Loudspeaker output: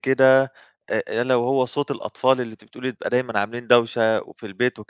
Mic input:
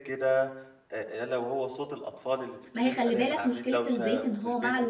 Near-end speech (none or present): present